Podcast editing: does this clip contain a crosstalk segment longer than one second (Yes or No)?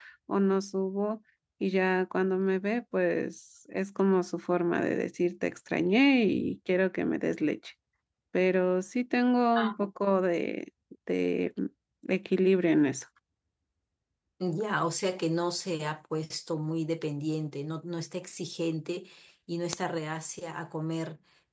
No